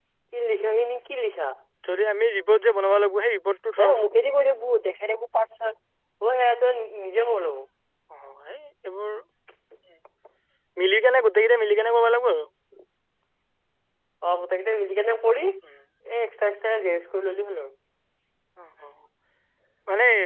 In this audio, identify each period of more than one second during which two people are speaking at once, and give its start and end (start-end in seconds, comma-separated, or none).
none